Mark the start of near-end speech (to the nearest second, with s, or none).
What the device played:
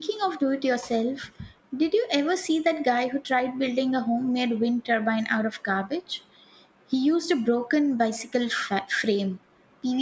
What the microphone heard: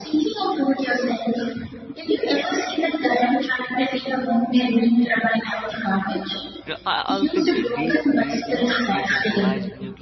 6 s